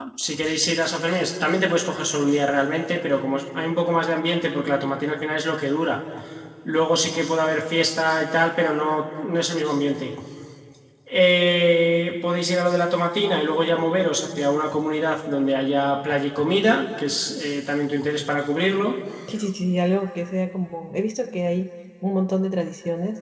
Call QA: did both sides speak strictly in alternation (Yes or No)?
Yes